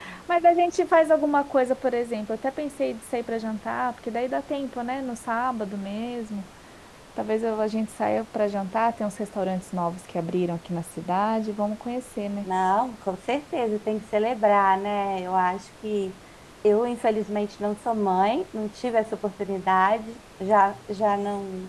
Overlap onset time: none

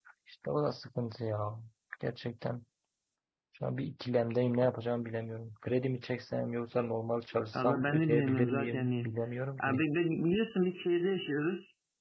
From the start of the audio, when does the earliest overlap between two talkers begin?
7.5 s

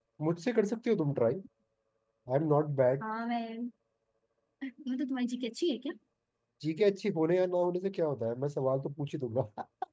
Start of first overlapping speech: none

